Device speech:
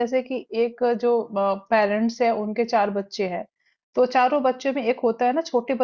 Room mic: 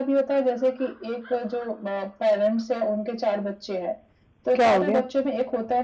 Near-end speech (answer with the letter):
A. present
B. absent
A